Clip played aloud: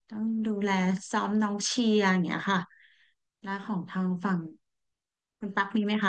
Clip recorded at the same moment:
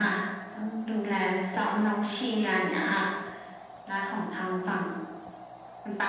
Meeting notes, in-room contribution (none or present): none